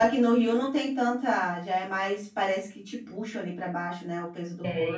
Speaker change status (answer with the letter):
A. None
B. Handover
B